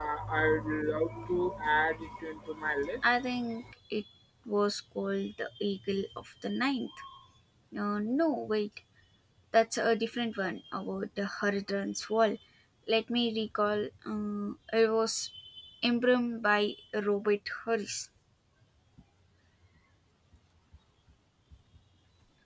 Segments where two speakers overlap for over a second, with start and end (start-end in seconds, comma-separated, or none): none